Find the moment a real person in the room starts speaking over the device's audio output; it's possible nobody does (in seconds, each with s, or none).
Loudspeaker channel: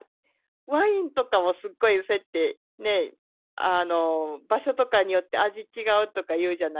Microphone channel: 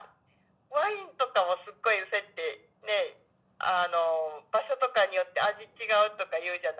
none